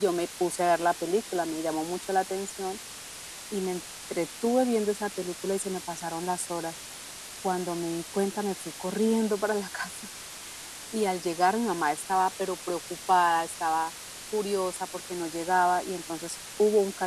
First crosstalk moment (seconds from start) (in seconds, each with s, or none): none